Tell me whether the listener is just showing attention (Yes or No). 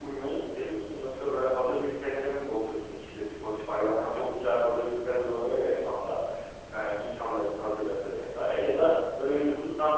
Yes